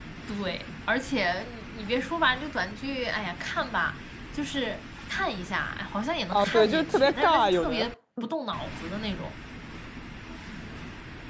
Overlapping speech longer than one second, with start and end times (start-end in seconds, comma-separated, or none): 6.3-7.9